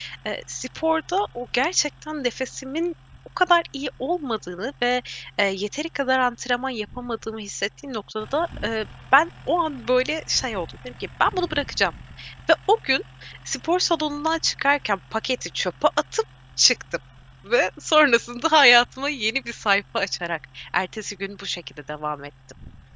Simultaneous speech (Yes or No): No